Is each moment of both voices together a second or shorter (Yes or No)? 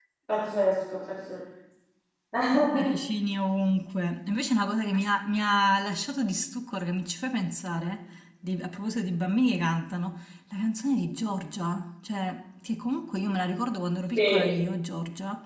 Yes